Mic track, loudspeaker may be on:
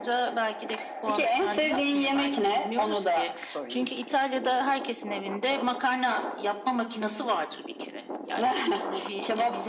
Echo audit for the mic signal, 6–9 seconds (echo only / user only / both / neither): echo only